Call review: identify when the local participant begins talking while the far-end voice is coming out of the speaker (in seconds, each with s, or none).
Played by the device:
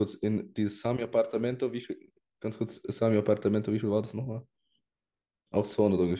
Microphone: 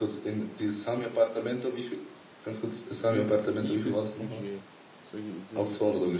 3.1 s